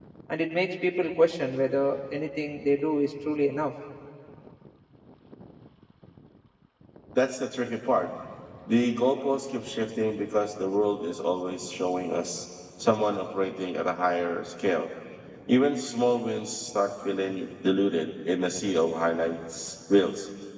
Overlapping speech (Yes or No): No